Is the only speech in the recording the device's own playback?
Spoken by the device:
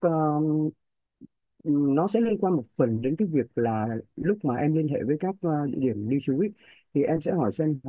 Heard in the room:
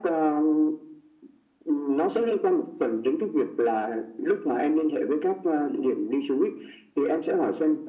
Yes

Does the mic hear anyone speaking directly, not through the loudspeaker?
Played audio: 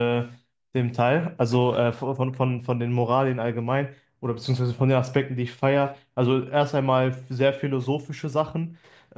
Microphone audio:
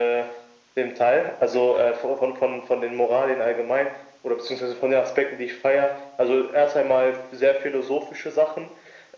No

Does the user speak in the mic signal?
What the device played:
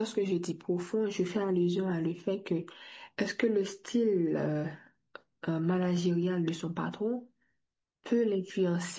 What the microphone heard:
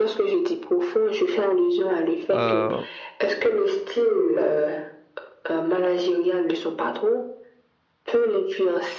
Yes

